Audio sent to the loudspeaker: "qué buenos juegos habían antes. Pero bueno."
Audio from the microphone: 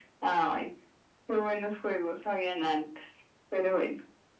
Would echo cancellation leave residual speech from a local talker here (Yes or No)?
No